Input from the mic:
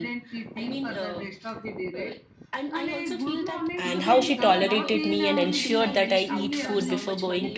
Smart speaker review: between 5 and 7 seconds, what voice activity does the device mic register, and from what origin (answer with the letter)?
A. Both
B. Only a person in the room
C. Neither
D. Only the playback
A